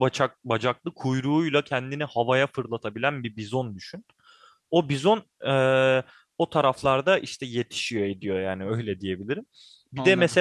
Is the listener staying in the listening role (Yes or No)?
Yes